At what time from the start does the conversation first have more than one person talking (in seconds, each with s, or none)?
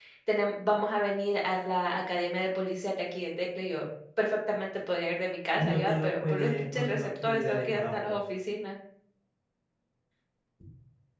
5.6 s